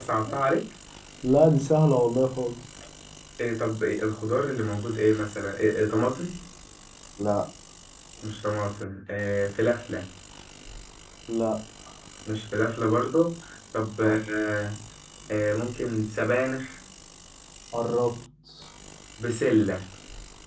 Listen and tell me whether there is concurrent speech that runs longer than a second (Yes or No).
No